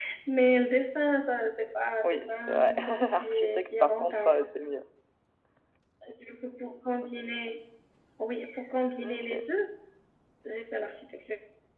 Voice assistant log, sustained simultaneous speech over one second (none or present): present